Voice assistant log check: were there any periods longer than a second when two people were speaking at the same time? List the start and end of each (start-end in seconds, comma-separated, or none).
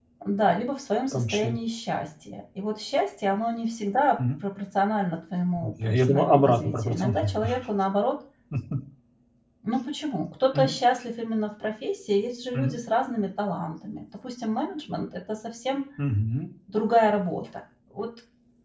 5.8-7.3